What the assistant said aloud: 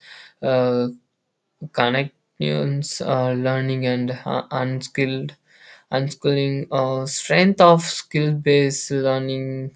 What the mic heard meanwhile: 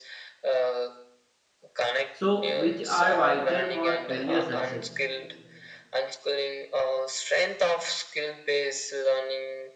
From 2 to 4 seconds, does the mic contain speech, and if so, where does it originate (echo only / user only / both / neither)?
both